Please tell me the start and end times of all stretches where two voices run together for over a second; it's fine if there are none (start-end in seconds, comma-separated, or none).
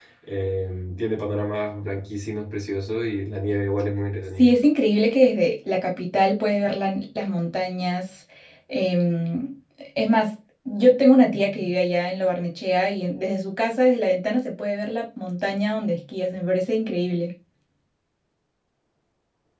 none